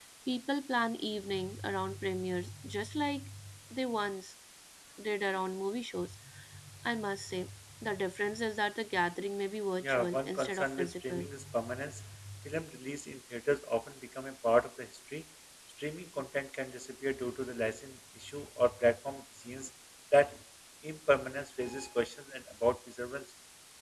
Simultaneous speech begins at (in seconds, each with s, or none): 9.8 s